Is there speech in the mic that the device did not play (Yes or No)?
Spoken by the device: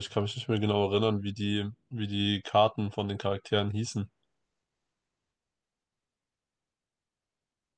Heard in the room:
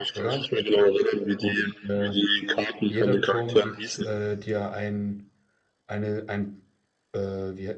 Yes